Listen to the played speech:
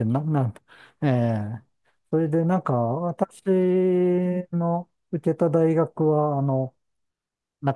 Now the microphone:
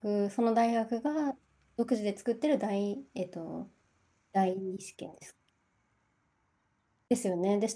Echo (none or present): none